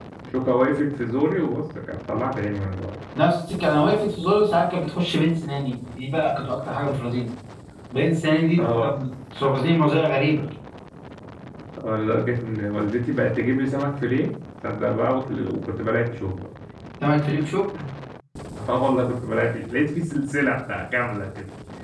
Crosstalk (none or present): none